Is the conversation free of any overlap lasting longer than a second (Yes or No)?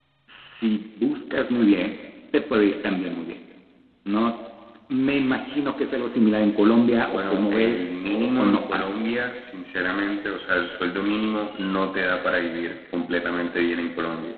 No